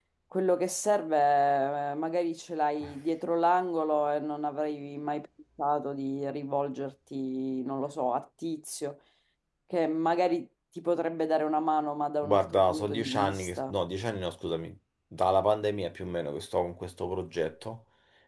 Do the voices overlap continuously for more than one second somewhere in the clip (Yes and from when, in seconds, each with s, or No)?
Yes, from 12.2 s